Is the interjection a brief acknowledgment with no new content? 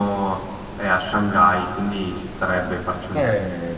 No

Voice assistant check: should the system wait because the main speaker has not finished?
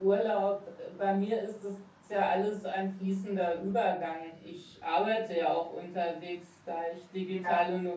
Yes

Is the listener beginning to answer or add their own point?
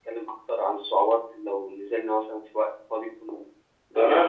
Yes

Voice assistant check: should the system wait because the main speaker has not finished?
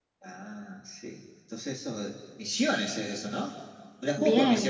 No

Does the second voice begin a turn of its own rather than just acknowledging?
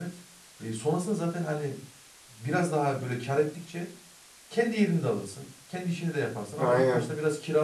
No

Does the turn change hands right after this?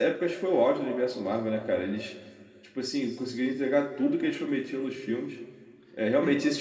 No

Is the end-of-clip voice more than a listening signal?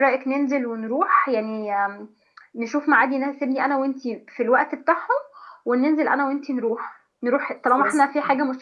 No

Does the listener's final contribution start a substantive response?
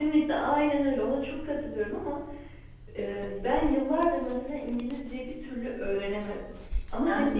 No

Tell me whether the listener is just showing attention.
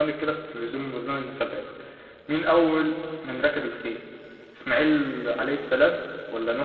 Yes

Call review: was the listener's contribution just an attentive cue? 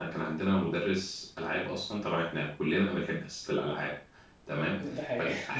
Yes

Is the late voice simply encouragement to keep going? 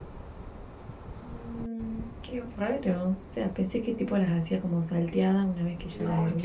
No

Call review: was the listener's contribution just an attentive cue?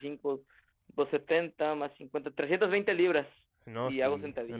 No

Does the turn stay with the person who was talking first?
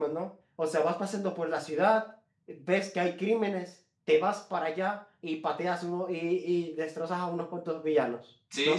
No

